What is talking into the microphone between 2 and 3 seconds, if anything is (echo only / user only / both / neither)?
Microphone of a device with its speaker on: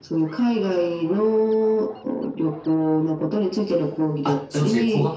echo only